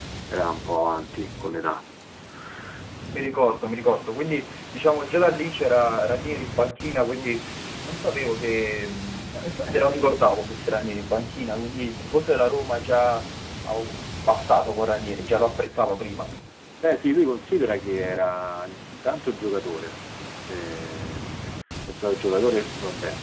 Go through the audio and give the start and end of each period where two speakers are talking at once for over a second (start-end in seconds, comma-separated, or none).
none